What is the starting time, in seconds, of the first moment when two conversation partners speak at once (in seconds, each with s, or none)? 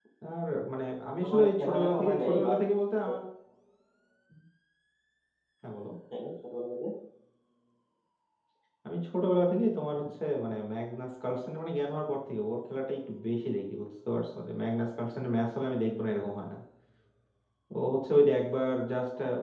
1.2 s